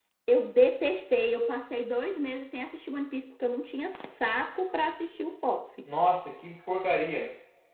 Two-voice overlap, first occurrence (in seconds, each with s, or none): none